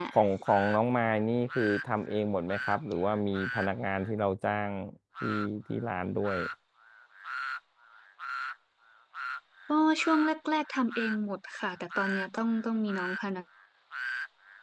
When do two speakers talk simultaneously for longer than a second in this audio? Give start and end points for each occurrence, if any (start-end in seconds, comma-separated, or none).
none